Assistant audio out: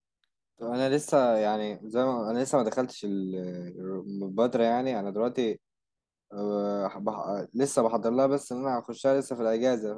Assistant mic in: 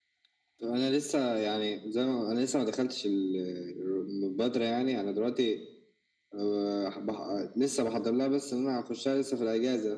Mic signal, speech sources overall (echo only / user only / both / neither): echo only